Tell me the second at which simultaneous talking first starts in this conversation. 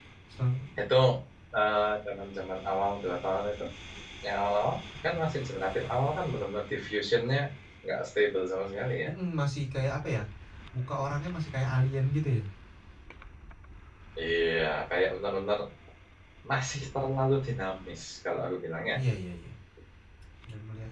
none

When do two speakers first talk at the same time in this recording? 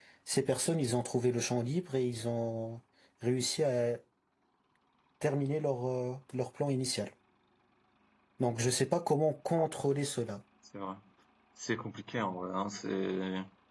none

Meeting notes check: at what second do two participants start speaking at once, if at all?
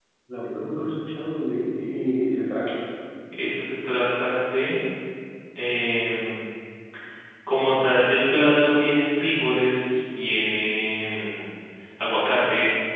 none

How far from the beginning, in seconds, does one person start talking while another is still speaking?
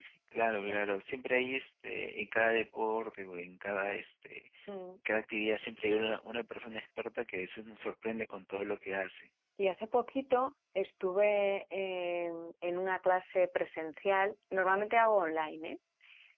none

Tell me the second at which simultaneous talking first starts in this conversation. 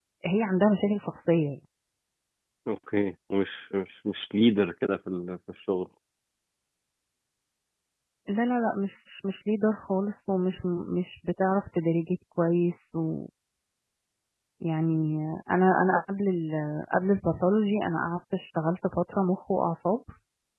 none

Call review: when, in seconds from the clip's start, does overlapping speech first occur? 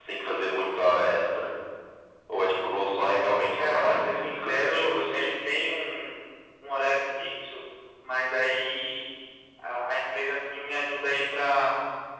3.5 s

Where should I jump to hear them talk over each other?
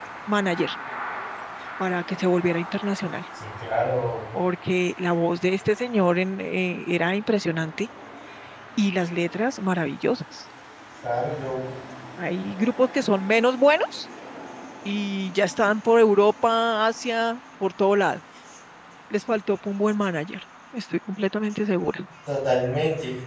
none

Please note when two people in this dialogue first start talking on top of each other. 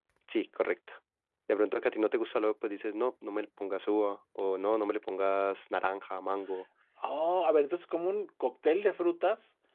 none

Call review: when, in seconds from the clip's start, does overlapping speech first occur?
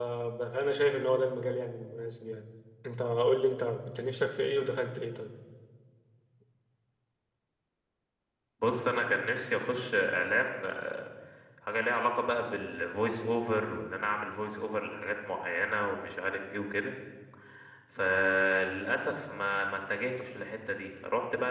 none

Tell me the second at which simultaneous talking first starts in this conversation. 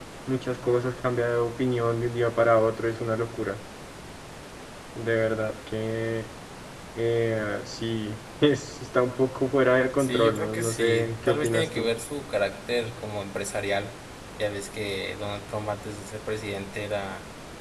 10.0 s

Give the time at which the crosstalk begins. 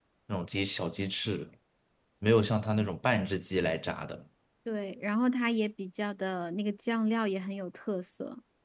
none

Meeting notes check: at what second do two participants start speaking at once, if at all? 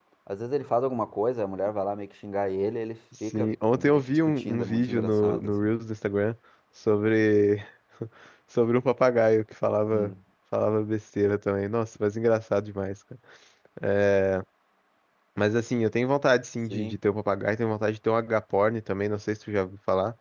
3.3 s

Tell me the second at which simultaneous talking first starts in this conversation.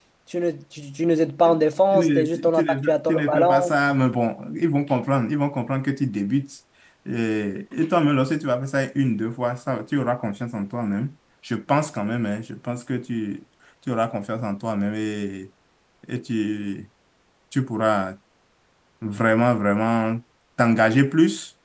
1.9 s

